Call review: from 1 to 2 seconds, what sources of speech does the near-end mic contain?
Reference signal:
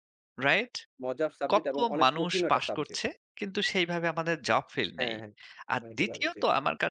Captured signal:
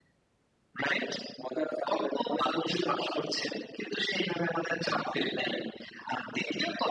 echo only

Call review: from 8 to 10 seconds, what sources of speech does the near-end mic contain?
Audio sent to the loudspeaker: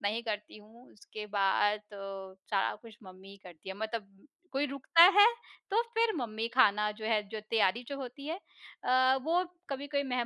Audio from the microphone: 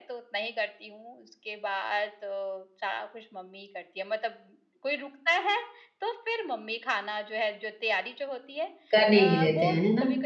both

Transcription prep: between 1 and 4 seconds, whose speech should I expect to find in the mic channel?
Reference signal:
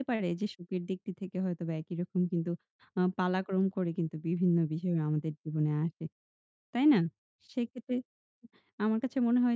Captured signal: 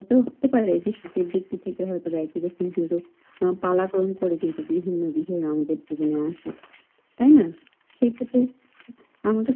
echo only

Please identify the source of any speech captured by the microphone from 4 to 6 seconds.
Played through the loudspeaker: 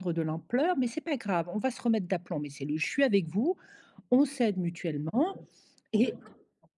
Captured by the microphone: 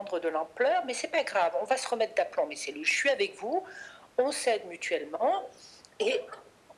echo only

